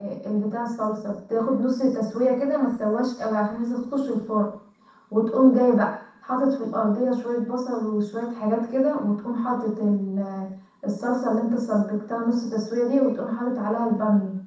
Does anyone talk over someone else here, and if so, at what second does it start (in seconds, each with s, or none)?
none